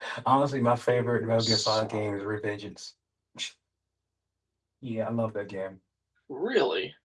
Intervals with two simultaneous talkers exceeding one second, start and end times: 0.9-2.1

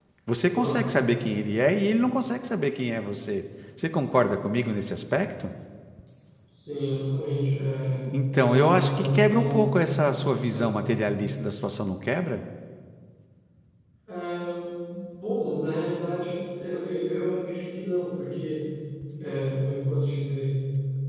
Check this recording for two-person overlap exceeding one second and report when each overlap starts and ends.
8.3-9.7

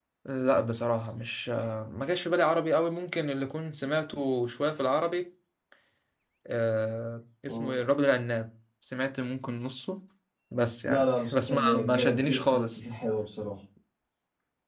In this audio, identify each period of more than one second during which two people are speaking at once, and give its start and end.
10.9-12.8

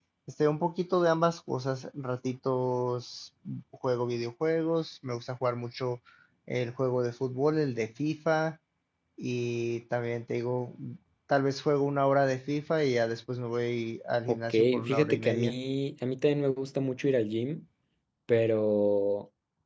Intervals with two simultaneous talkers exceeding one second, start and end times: 14.3-15.6

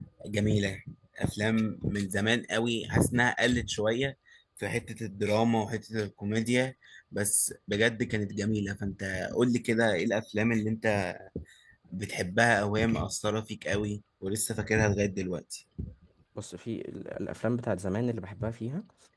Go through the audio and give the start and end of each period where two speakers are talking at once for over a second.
none

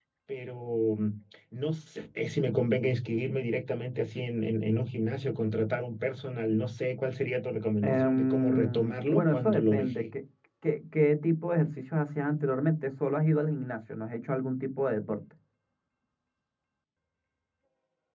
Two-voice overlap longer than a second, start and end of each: 7.8-10.0

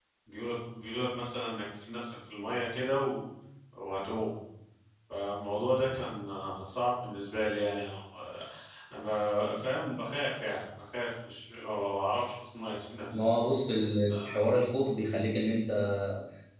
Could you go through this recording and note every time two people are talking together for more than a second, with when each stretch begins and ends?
none

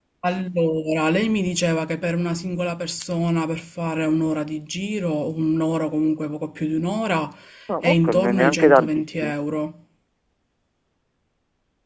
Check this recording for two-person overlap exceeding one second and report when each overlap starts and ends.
7.8-9.3

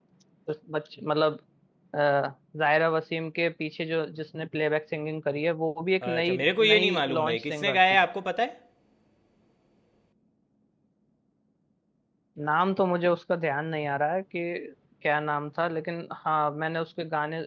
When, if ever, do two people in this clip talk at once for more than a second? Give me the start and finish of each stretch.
6.0-7.8

